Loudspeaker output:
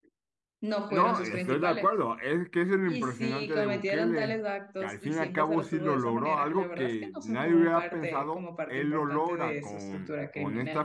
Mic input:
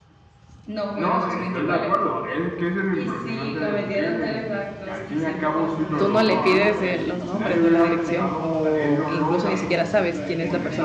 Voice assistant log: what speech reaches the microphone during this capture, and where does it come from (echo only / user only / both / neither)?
both